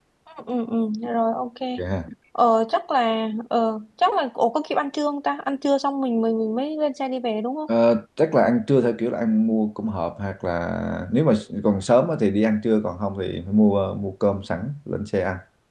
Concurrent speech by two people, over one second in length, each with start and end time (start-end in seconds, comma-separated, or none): none